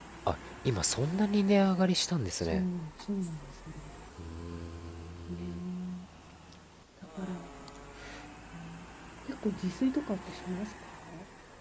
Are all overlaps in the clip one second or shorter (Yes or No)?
Yes